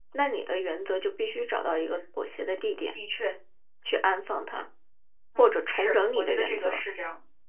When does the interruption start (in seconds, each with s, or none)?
5.4 s